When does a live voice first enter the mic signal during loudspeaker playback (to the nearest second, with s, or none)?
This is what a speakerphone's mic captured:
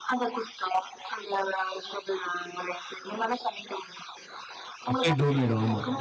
5 s